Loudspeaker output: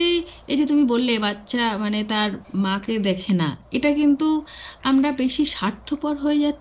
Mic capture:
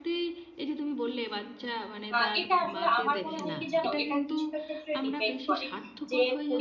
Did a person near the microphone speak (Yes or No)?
Yes